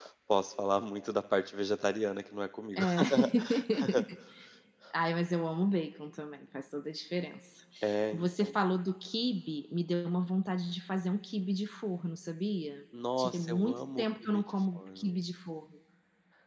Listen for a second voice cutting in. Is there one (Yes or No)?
Yes